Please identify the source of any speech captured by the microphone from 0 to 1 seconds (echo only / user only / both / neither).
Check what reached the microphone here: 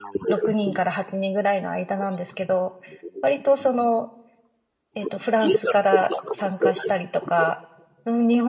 both